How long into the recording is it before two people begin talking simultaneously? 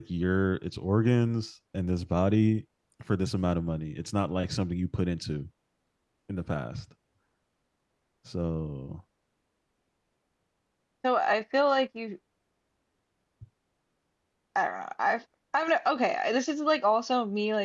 none

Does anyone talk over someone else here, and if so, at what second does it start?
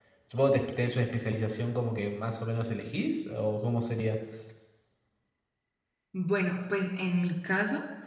none

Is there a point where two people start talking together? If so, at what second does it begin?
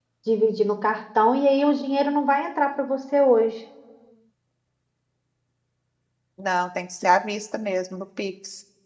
none

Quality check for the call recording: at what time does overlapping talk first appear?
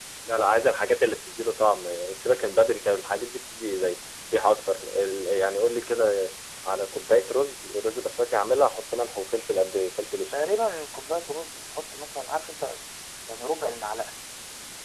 none

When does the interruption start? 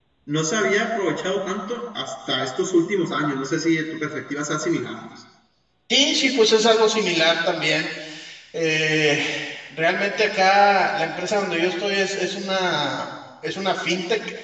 none

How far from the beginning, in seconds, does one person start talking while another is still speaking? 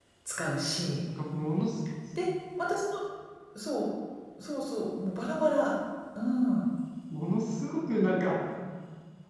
none

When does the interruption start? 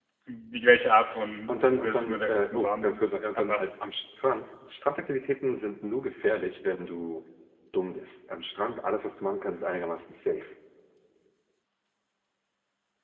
1 s

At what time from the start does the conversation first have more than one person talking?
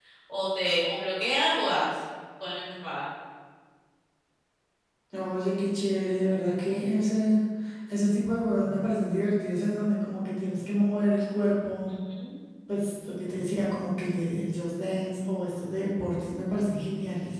none

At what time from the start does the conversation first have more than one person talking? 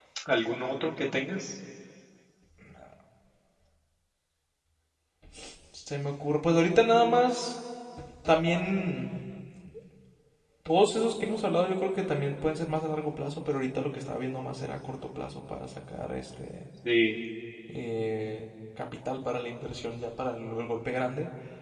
none

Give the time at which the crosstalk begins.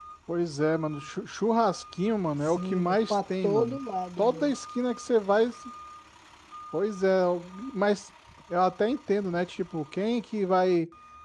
2 s

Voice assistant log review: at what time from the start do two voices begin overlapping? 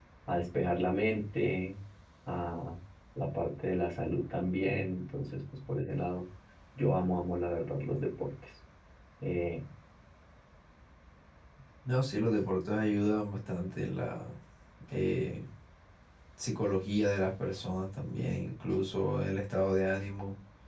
none

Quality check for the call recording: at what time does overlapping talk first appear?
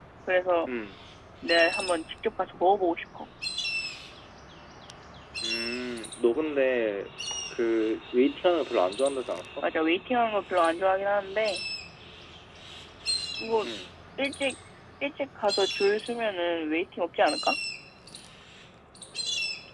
none

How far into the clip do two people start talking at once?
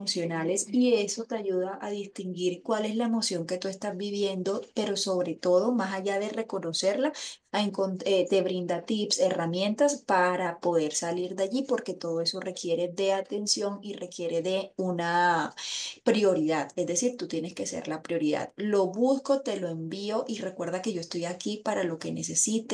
none

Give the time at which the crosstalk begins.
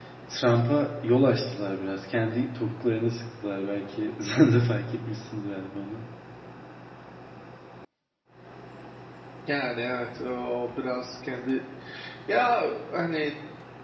none

